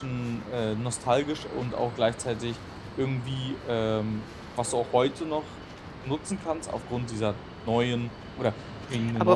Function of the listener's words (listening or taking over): taking over